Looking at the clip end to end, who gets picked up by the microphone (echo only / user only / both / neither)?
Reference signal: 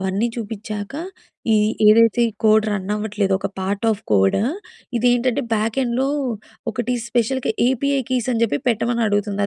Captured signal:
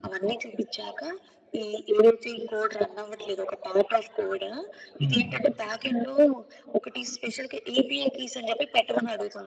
both